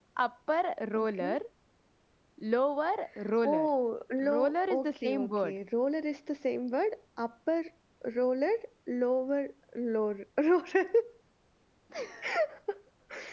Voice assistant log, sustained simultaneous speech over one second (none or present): present